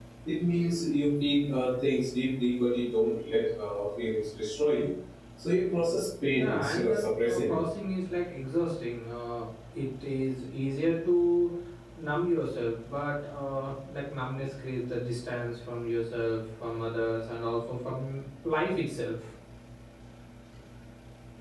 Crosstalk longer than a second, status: present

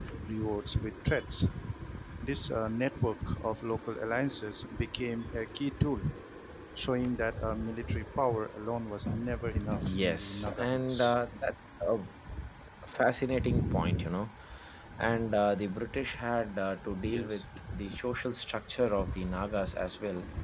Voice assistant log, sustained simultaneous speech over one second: present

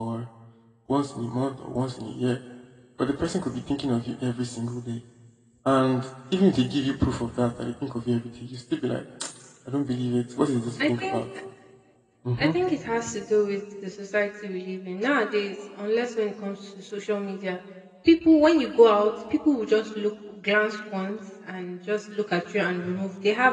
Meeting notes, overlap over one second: none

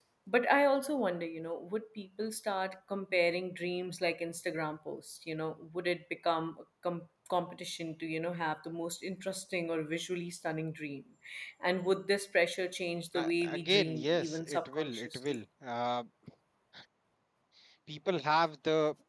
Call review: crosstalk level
present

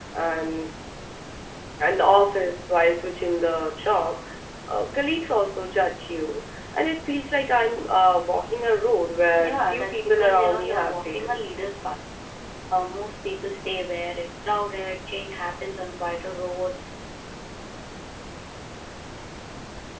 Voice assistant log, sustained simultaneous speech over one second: present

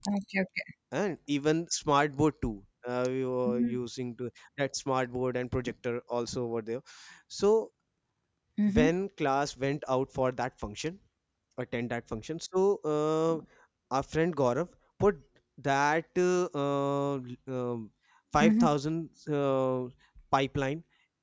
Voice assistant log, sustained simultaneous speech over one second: none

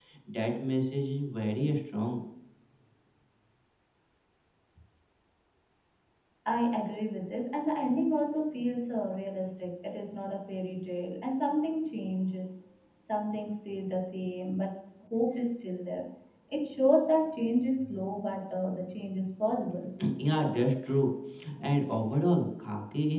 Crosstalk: none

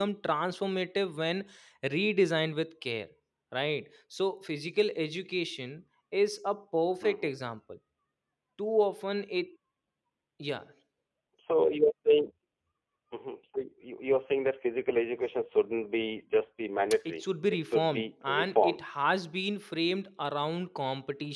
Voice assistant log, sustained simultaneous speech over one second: present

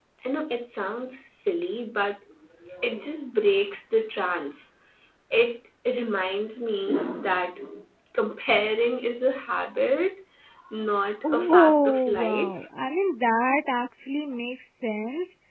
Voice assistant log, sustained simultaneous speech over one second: present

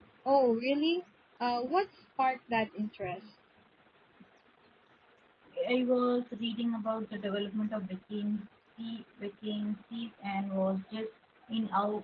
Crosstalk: none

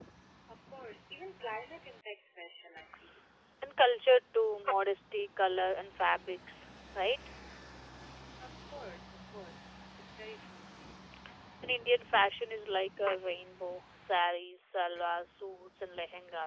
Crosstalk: none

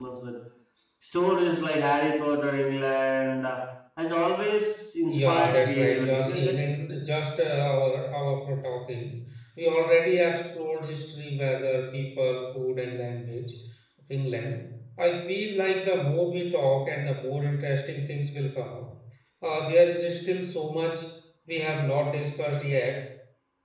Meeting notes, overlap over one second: present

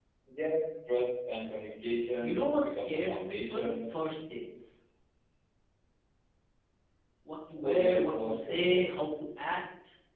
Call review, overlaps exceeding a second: present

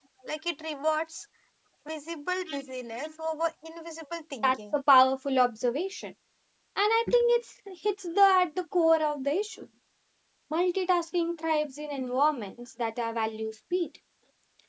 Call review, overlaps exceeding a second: none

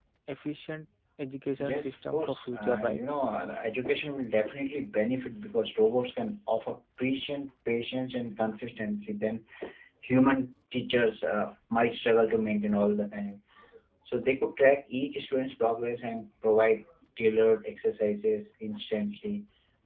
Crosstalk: present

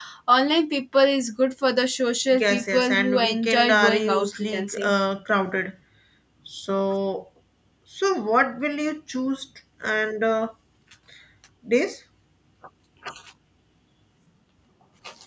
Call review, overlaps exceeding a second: present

